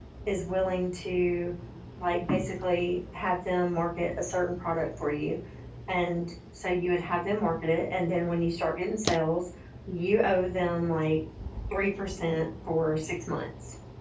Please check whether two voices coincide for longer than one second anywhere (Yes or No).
No